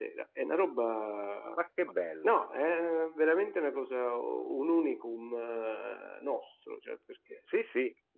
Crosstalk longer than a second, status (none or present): none